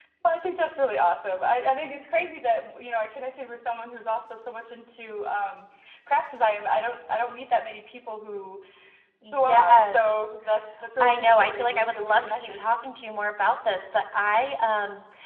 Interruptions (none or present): present